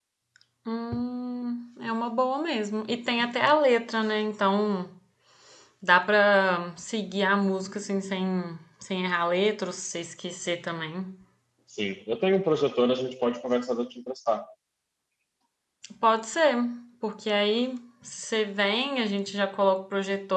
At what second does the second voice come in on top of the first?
none

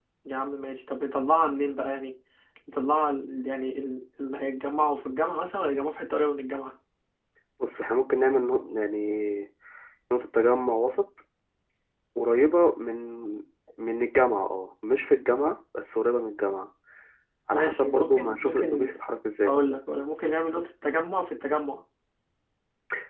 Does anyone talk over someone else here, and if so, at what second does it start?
17.5 s

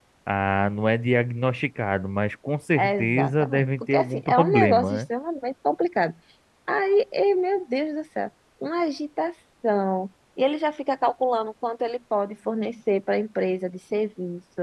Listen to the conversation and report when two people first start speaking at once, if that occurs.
2.8 s

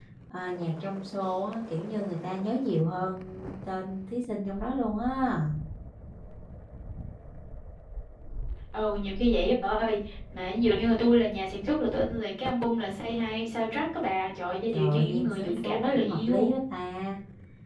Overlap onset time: 14.7 s

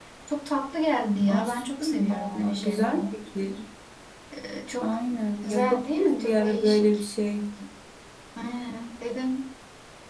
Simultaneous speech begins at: 1.3 s

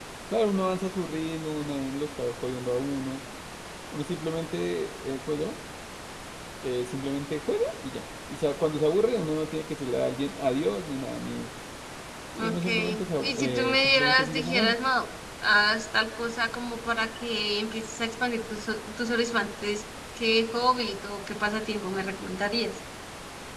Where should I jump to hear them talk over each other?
12.4 s

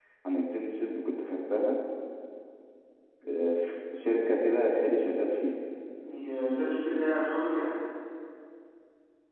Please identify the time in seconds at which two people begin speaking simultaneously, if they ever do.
none

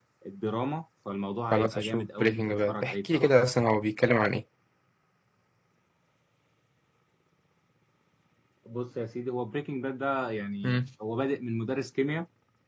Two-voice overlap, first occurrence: 1.5 s

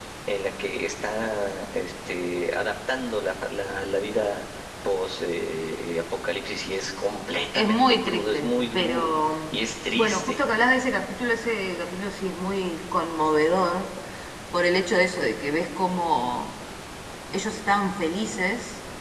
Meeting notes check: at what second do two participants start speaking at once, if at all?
7.5 s

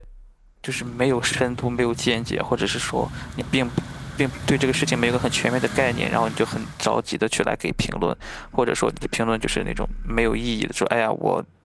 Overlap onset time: none

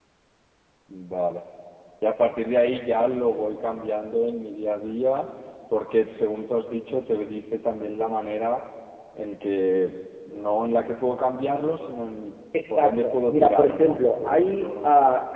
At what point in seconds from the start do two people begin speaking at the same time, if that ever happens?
12.5 s

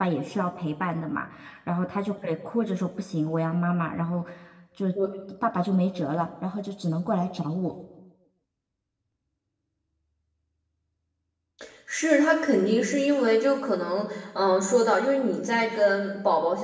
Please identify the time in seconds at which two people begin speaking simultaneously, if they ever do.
none

